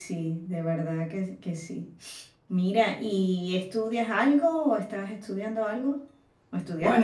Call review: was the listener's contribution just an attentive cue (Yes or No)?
No